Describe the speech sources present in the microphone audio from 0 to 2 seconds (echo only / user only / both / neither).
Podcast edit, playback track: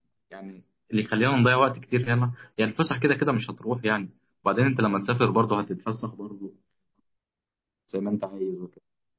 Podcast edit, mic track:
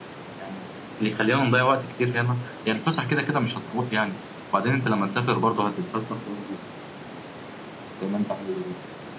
echo only